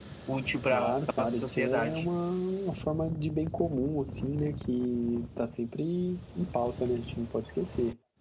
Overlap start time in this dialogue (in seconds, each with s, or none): 0.7 s